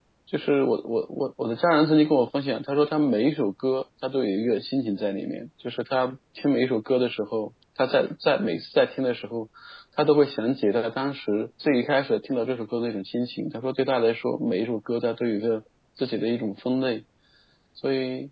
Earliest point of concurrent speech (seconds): none

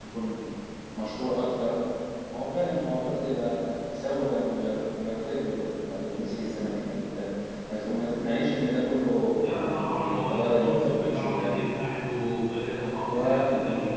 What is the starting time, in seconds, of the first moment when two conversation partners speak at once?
9.3 s

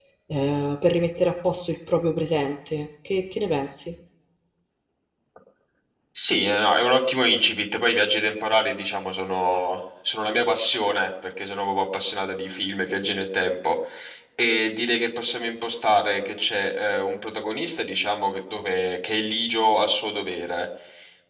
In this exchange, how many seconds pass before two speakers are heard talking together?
none

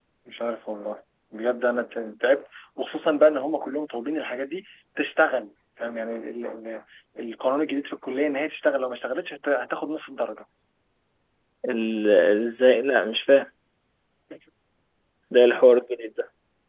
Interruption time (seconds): none

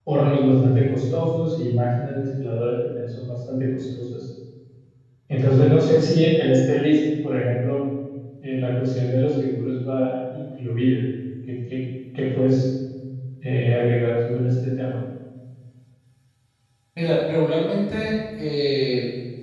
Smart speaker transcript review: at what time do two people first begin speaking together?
none

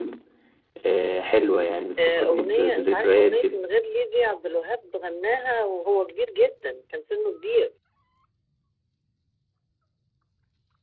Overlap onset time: 2.0 s

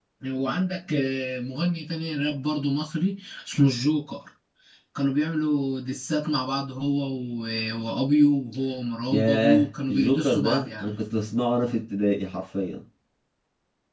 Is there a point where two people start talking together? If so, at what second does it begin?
9.1 s

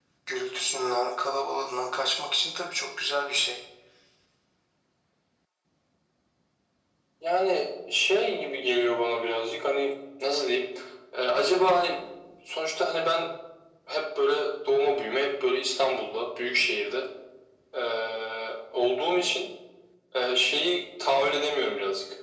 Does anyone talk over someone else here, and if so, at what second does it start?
none

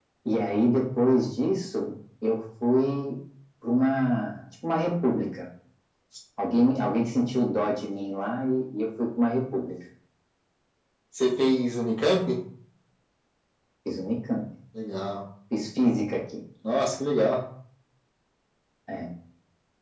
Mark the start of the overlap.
none

